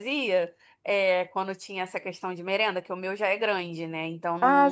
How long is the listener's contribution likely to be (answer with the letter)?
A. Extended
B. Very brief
B